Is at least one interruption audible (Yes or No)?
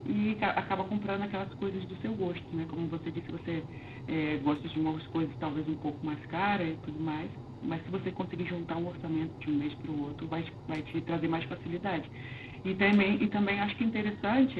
No